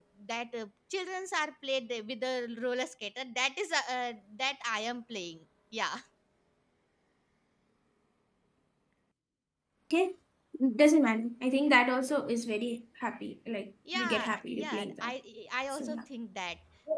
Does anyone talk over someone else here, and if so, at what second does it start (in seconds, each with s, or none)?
13.9 s